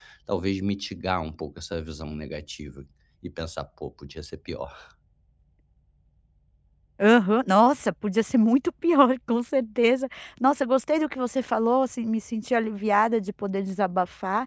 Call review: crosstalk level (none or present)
none